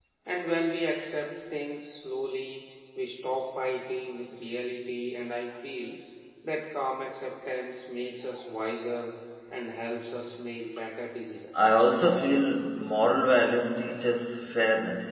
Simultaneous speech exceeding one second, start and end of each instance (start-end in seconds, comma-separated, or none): none